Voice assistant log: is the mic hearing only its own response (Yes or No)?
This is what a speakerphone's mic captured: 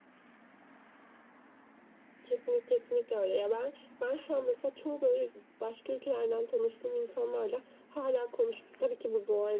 Yes